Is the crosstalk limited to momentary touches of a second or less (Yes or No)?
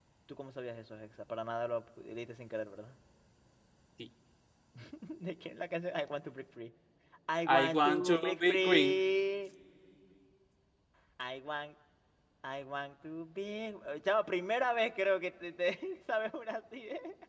No